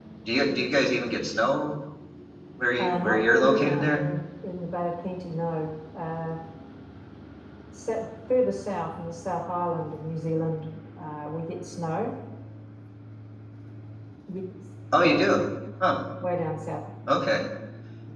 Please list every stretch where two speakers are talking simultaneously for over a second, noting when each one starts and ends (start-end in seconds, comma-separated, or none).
2.8-4.0